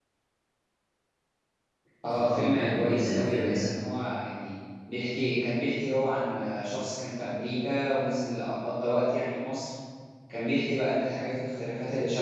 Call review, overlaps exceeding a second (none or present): present